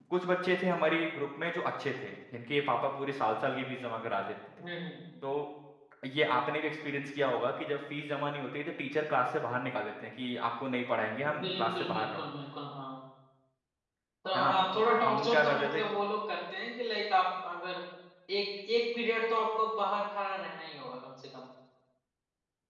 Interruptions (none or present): present